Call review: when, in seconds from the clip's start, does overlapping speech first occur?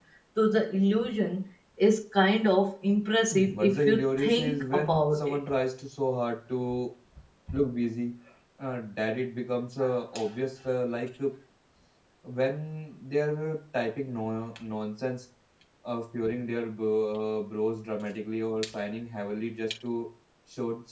3 s

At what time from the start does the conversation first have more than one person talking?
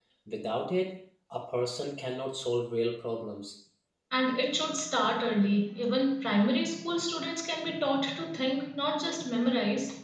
none

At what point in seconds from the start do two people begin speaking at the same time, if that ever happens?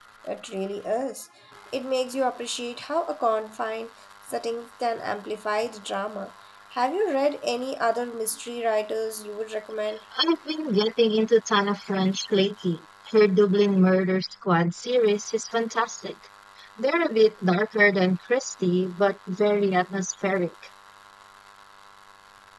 none

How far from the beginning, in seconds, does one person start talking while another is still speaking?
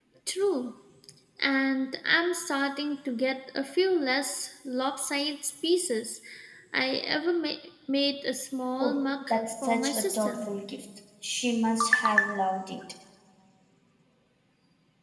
9 s

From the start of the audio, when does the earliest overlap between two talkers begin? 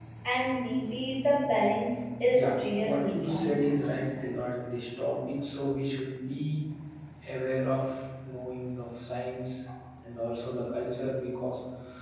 2 s

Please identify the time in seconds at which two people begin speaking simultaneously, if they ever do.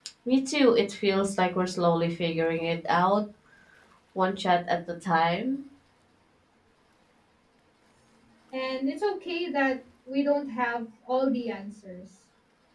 none

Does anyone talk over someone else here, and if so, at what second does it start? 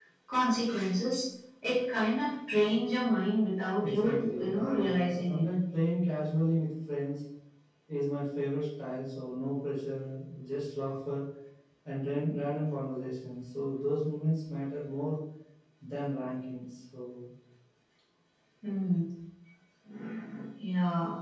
4 s

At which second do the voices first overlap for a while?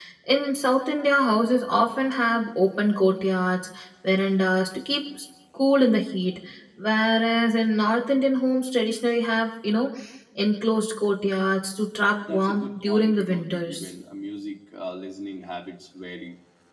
12 s

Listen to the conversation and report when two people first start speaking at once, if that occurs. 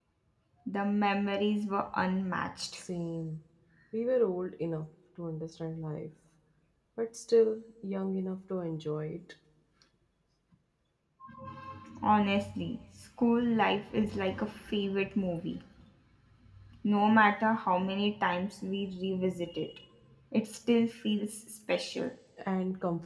none

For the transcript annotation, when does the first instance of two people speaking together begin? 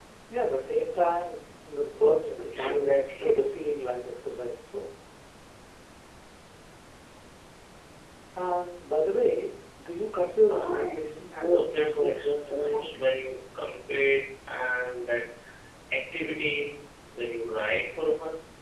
2 s

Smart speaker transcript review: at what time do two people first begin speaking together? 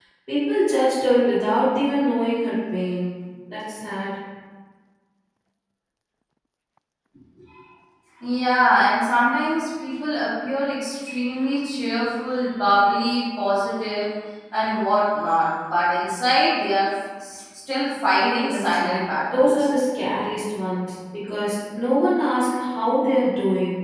18 s

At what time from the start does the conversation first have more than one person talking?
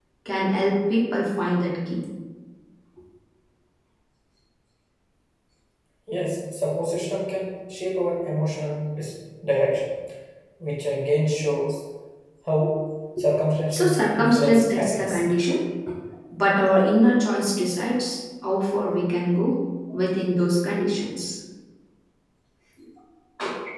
14 s

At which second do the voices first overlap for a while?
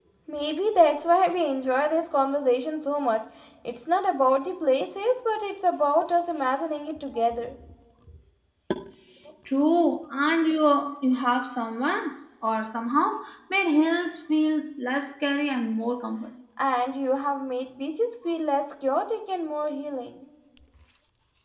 none

